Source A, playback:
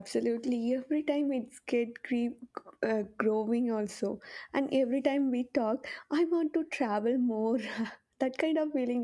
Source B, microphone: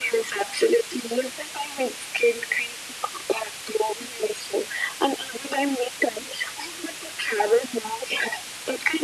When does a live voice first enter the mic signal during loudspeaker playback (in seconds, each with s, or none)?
none